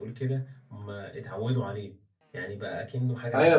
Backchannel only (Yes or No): No